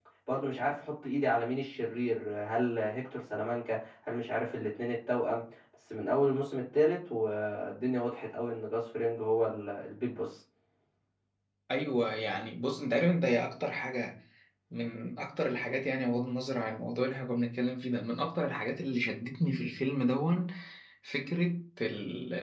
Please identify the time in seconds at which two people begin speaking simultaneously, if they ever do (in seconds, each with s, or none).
none